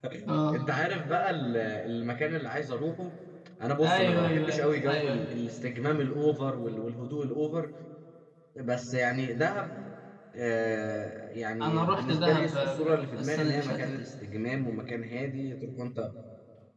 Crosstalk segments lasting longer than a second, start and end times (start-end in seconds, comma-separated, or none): 3.8-5.2, 11.6-14.0